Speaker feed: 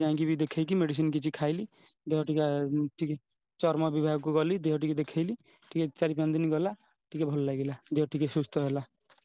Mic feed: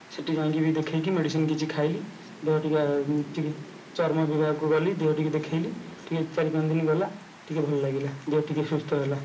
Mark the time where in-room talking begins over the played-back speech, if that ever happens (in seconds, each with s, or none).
none